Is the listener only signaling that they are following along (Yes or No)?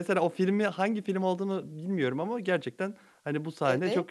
Yes